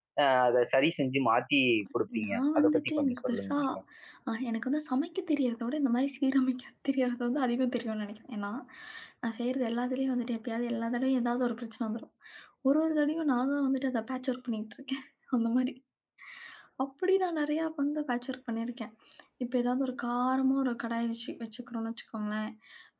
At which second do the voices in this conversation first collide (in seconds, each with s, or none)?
2.2 s